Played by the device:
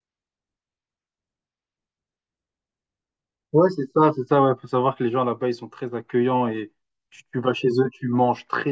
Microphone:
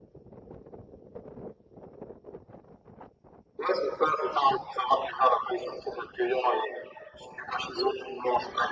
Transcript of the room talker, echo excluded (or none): none